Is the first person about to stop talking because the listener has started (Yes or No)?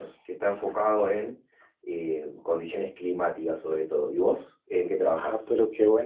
Yes